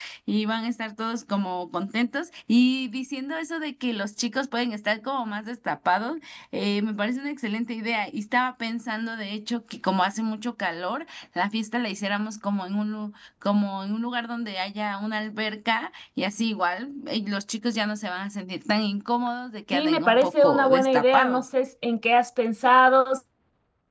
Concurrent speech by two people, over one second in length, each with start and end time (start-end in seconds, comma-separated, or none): 19.7-21.5